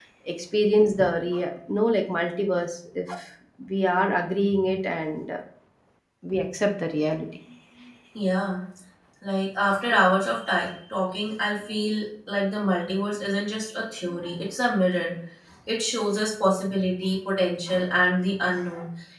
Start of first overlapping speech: none

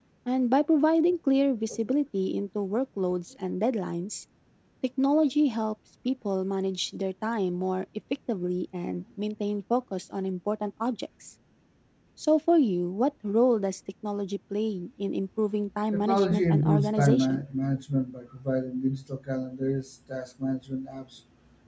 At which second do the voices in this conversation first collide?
16 s

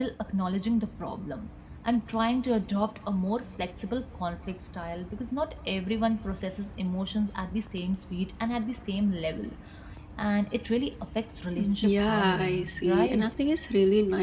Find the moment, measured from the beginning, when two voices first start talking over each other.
12 s

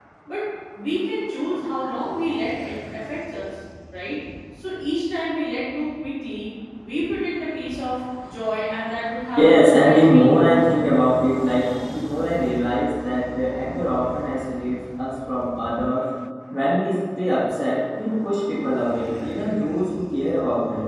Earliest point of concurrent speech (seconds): 9 s

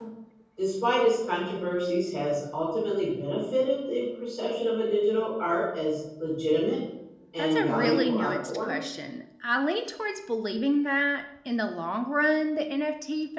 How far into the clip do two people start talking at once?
7 s

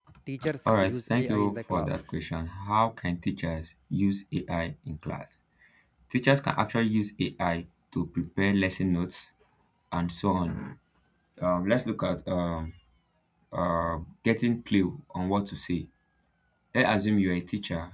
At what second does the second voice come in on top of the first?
1 s

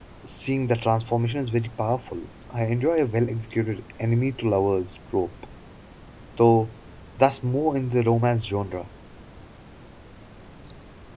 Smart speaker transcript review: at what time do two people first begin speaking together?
none

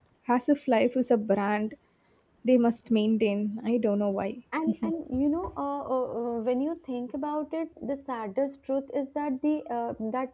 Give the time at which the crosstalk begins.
none

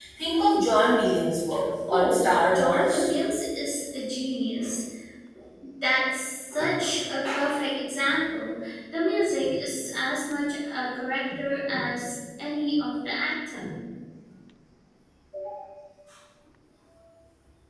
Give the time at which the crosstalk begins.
2 s

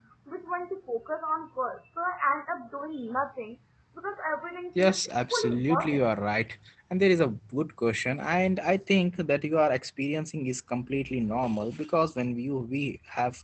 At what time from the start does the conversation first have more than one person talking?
5 s

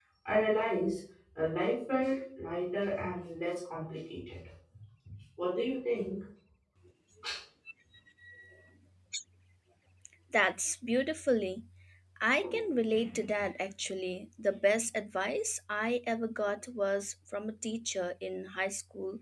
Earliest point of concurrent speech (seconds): none

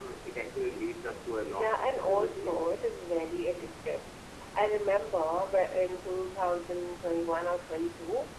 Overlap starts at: 1 s

